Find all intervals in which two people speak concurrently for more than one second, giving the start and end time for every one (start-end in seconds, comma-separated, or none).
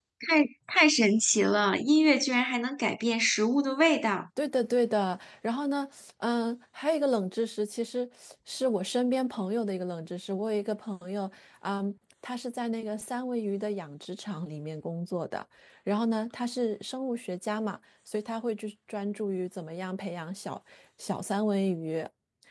none